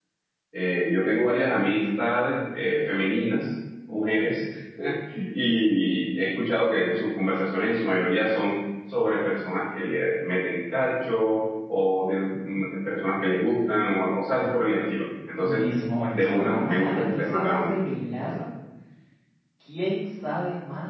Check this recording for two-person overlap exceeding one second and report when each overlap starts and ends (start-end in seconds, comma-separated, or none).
16.1-17.8